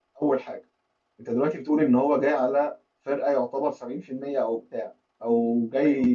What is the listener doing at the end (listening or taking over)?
listening